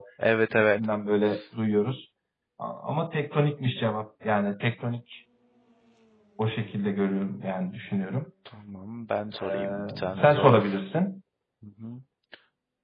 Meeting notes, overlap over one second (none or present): present